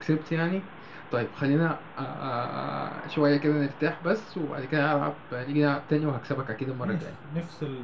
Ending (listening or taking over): taking over